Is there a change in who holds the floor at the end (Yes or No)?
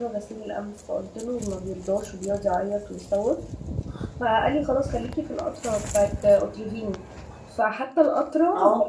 No